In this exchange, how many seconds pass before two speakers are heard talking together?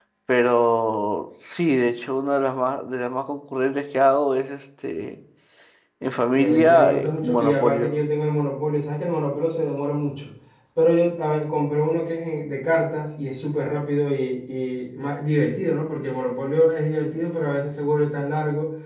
6.3 s

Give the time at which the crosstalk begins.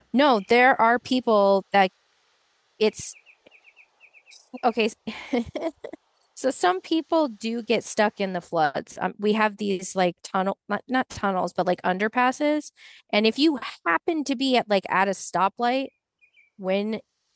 none

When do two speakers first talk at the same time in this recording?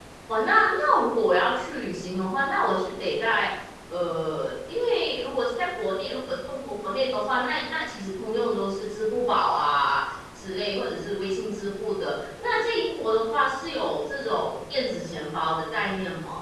none

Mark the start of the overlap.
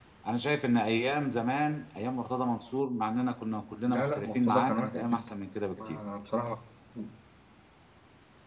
3.9 s

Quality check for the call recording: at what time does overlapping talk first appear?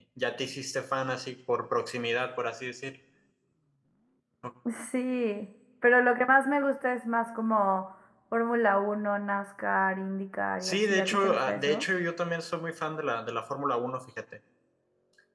10.6 s

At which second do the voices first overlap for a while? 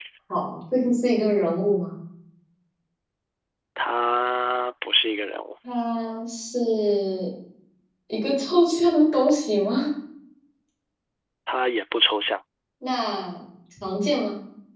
none

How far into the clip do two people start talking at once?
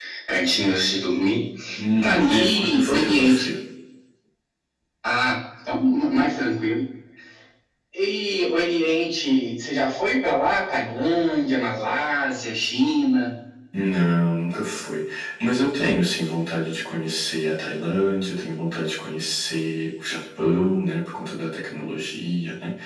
2.0 s

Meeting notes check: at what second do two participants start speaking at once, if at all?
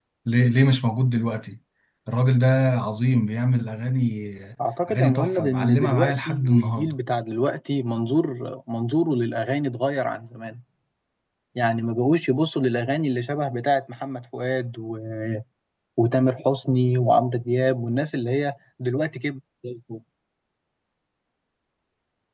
4.9 s

